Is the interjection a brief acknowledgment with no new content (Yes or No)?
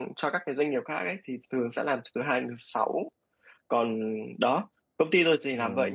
Yes